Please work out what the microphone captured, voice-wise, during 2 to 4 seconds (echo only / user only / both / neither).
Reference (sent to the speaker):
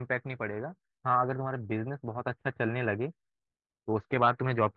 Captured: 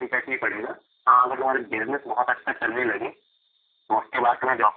echo only